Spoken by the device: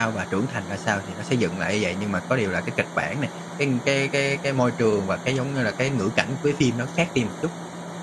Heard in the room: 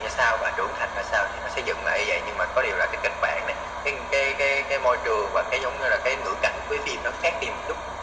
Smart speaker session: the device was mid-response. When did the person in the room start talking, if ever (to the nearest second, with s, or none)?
none